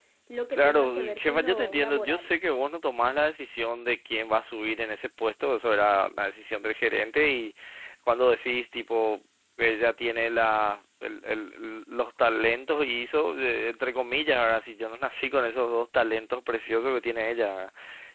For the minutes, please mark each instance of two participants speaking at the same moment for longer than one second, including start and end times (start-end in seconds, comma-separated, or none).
0.5-2.3